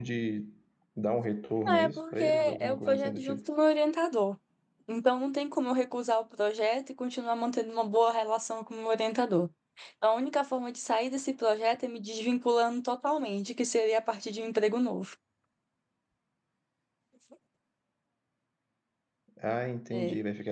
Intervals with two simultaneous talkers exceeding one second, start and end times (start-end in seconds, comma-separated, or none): 1.6-3.4